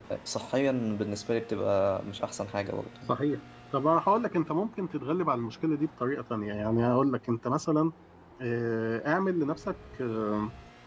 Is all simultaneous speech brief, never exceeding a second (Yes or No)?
Yes